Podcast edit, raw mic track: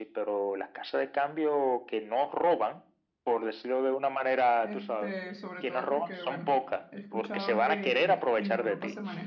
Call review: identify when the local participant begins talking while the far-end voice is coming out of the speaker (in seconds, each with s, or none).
4.6 s